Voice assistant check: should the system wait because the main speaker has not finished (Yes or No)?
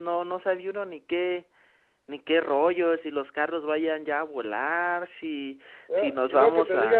No